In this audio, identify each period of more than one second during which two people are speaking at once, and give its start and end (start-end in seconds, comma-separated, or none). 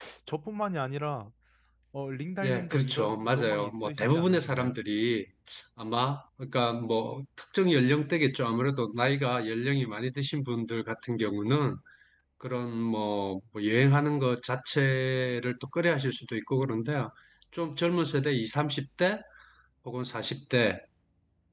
2.4-4.8